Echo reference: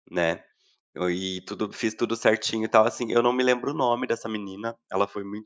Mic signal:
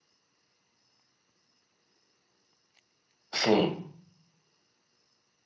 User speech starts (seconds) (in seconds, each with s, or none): 3.3 s